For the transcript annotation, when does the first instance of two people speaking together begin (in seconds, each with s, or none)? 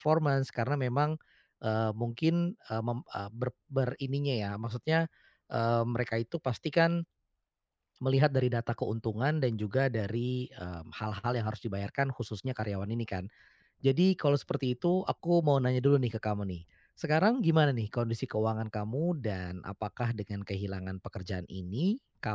none